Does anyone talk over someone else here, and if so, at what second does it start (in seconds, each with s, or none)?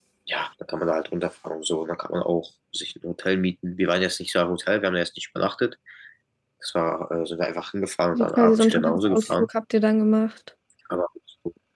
8.1 s